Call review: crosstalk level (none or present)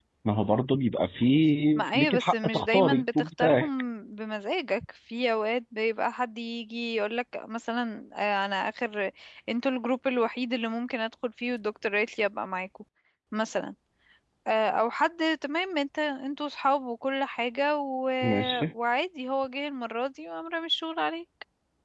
present